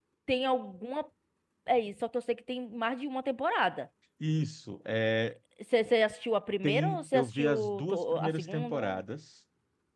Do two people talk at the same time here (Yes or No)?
Yes